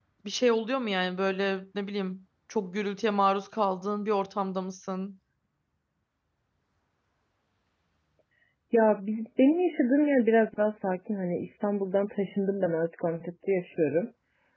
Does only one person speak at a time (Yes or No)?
Yes